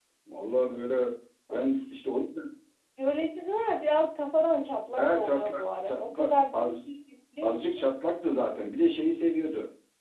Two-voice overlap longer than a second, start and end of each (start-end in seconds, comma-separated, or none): 5.0-6.6